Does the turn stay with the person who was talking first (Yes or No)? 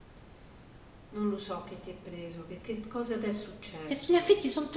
No